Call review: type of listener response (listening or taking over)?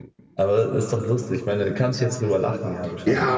taking over